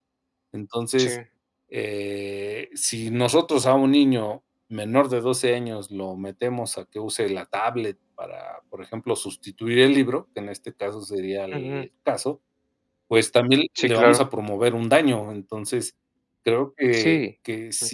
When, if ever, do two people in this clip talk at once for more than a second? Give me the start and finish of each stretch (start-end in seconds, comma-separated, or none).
none